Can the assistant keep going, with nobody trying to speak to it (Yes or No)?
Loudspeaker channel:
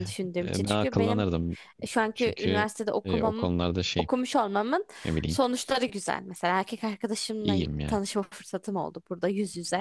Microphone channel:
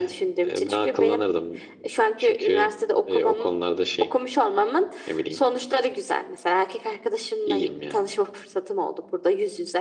Yes